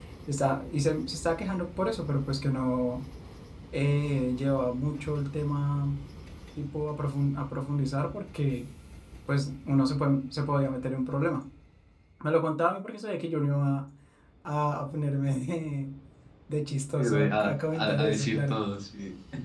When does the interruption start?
16.9 s

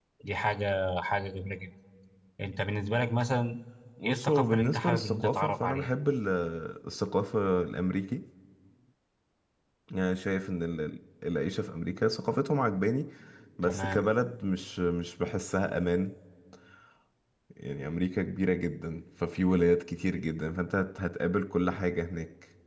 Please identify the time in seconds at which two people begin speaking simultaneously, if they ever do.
4.0 s

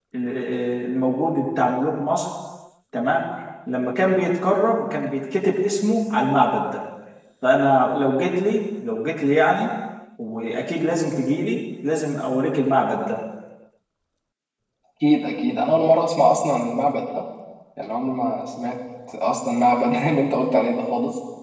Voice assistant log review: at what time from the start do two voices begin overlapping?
none

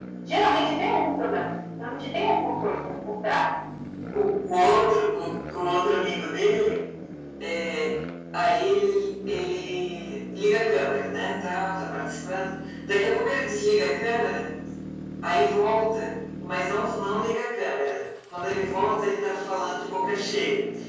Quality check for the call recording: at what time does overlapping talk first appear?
none

